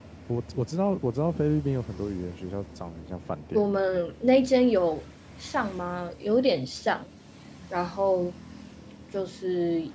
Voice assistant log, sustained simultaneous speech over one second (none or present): none